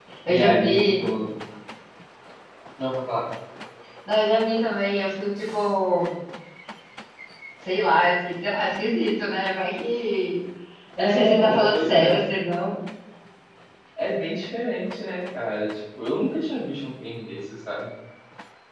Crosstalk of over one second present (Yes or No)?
Yes